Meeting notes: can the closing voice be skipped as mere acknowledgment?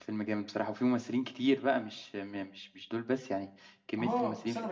No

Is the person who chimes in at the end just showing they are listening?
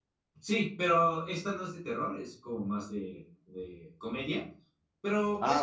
Yes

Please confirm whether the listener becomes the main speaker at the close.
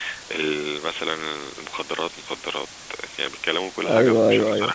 Yes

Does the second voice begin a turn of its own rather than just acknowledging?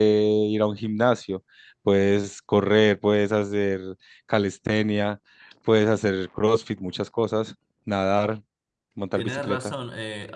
Yes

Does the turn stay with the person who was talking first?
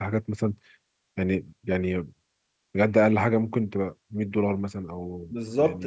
No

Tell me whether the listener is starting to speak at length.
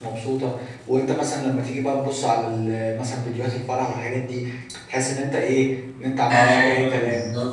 Yes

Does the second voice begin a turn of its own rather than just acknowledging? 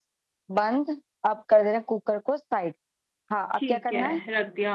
Yes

